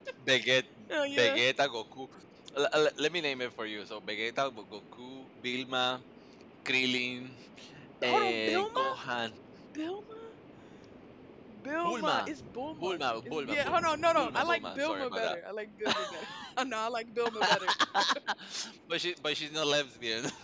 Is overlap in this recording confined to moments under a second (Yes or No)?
No